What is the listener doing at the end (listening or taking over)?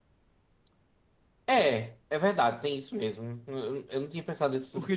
taking over